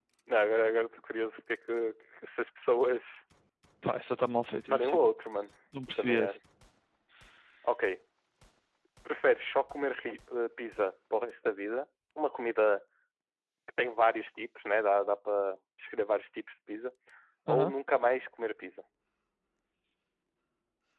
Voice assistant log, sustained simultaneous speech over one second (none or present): none